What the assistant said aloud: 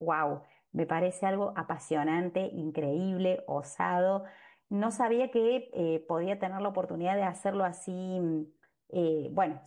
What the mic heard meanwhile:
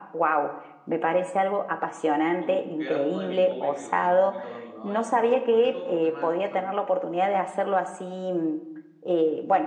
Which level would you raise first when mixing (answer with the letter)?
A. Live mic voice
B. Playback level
A